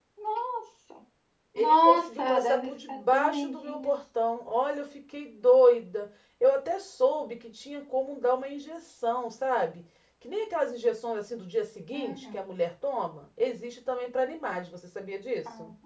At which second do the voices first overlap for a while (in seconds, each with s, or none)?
1.6 s